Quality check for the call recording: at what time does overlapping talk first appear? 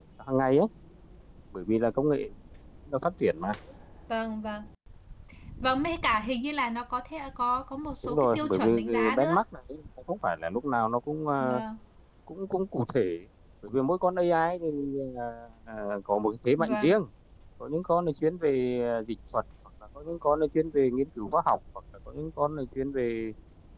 8.0 s

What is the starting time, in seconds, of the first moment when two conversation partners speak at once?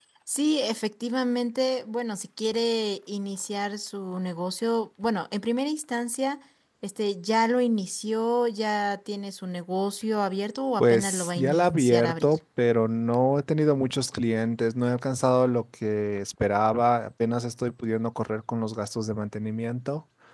10.8 s

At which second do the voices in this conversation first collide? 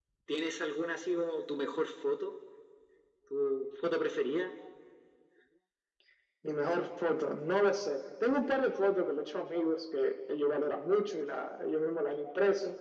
none

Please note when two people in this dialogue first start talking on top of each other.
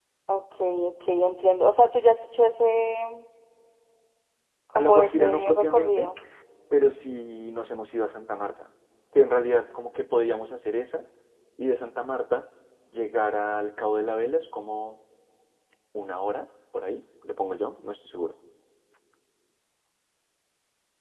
4.8 s

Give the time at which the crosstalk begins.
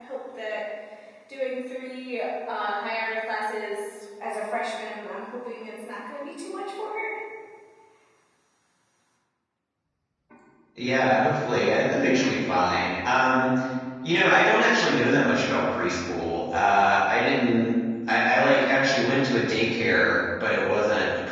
none

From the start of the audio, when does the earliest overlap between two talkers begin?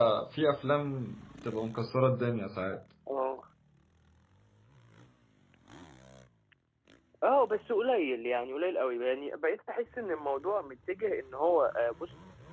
none

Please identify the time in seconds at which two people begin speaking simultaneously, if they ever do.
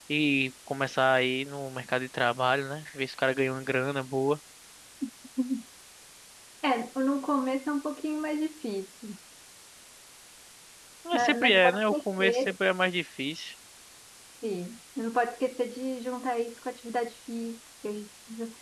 11.1 s

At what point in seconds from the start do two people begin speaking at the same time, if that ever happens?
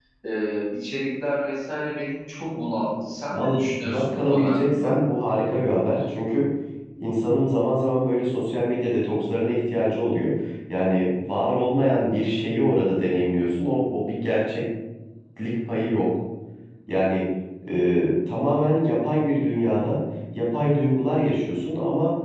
3.3 s

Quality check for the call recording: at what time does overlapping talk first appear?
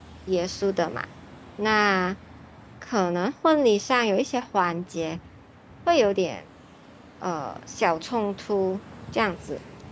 none

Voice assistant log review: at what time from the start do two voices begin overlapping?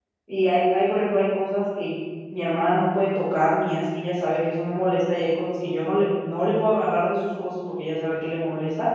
none

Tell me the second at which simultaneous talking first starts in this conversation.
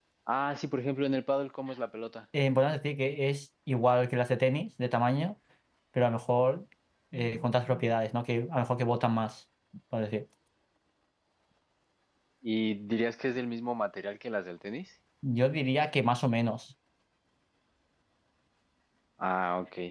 none

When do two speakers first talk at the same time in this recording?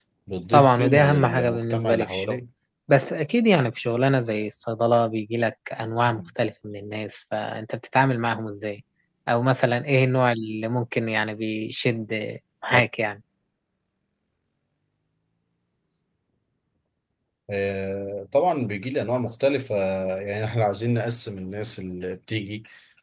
0.5 s

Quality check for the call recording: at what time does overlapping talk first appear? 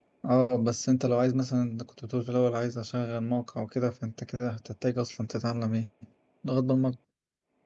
none

